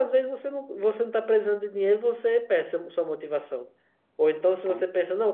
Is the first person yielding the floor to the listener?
No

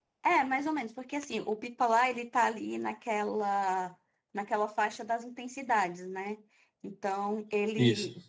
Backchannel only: Yes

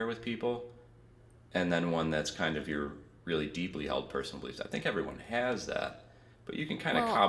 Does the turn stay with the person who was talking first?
Yes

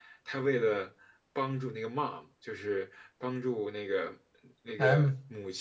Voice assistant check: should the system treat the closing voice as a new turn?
No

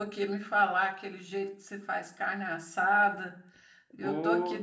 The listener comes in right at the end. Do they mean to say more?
No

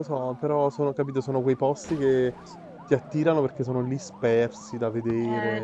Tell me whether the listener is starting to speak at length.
Yes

